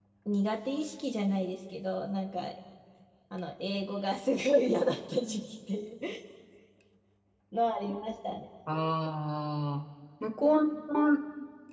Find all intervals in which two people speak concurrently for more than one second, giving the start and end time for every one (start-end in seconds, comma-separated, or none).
none